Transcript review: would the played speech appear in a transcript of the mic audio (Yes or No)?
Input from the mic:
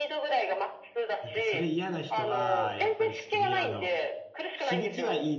Yes